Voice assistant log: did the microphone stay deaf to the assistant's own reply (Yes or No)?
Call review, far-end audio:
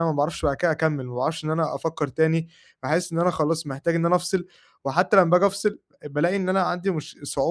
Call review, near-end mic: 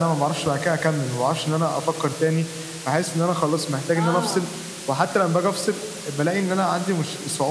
No